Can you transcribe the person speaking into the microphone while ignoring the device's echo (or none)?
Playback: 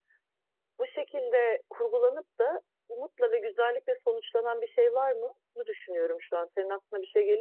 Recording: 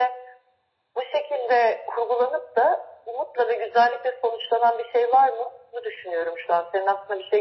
none